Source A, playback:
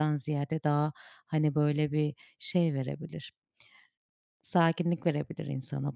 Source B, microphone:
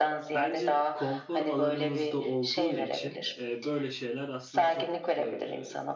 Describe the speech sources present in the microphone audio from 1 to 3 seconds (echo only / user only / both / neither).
both